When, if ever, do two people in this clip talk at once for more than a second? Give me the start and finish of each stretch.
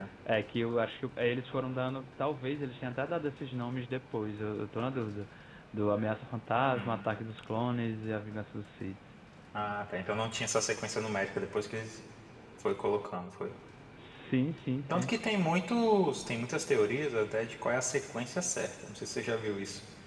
none

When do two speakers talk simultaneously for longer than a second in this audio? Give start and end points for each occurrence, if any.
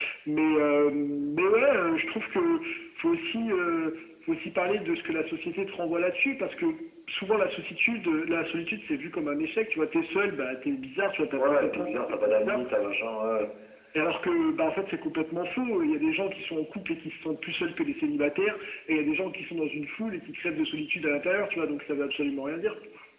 11.4-12.6

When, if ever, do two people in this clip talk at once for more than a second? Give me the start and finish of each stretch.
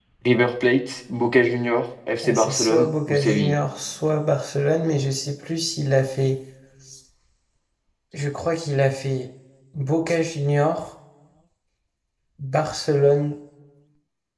2.2-3.5

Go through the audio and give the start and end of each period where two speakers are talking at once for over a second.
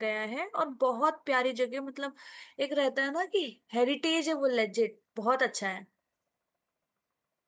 none

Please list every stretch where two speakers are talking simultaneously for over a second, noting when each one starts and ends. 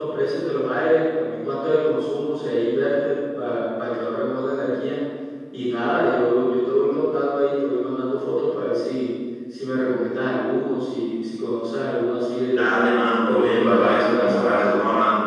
13.3-14.8

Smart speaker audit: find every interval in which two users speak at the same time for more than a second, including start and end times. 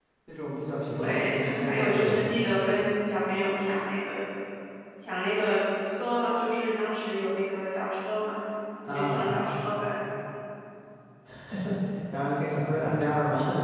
1.0-2.2

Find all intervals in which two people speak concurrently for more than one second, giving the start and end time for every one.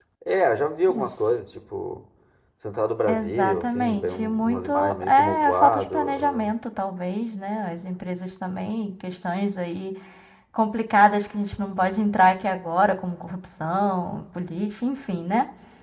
3.1-6.5

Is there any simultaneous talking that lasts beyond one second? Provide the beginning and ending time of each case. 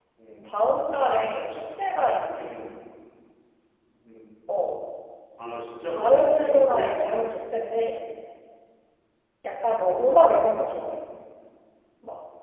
6.0-7.2

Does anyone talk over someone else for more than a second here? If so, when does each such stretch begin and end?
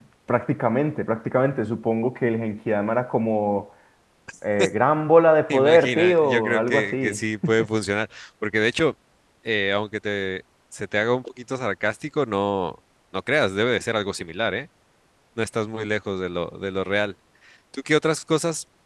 5.5-7.2

